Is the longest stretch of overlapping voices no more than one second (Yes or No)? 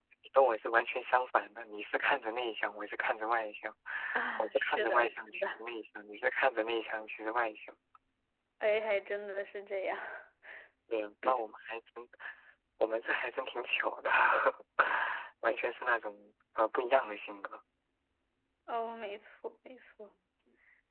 No